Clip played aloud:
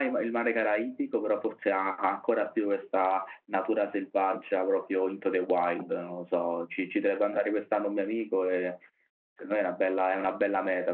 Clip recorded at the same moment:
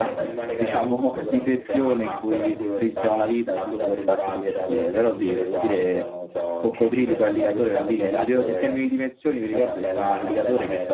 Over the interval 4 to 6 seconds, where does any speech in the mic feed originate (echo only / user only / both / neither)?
both